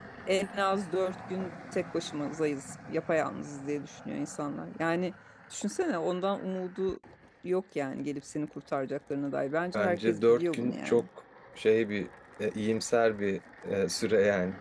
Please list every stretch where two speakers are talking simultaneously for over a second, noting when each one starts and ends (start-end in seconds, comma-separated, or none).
9.7-11.0